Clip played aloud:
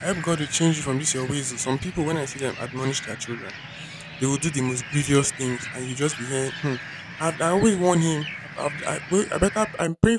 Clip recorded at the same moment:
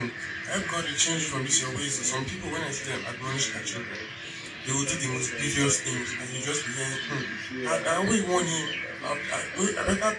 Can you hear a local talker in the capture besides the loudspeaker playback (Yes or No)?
Yes